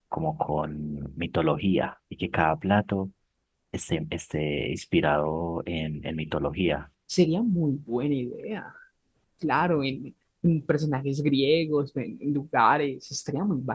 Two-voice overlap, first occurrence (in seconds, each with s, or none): none